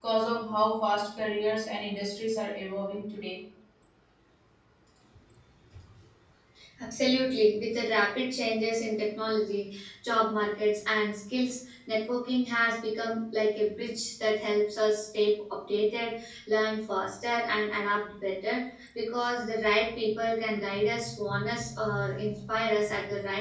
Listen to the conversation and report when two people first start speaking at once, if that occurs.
none

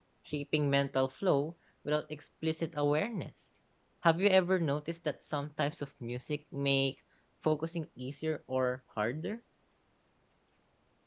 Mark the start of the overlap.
none

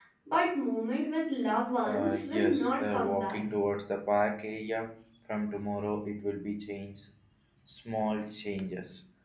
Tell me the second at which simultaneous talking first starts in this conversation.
1.9 s

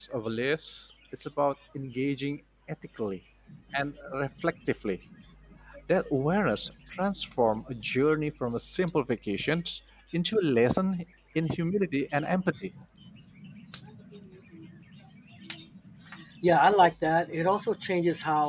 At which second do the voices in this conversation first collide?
none

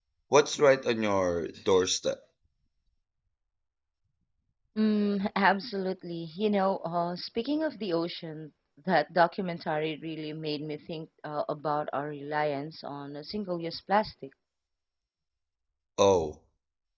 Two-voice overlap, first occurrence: none

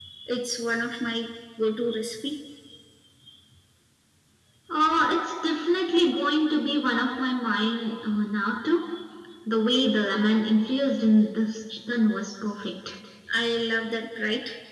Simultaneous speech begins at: none

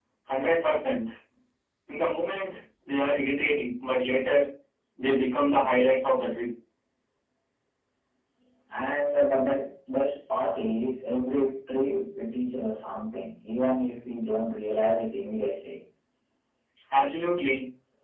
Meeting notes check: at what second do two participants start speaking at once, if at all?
none

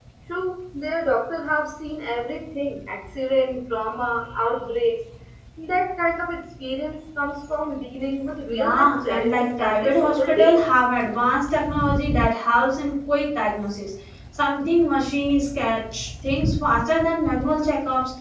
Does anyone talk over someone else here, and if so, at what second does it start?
8.5 s

